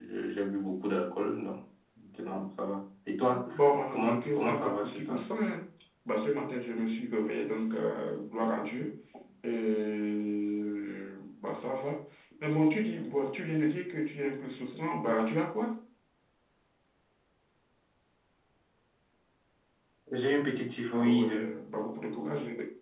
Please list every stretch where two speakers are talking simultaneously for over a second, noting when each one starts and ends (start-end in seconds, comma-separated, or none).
3.9-5.3